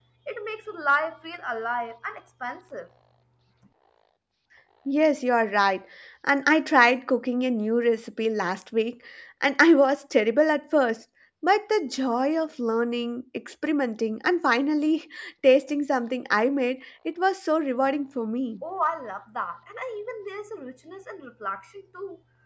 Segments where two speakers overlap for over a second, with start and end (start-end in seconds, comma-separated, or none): none